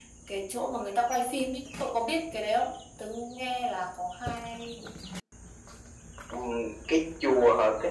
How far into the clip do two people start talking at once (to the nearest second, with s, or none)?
none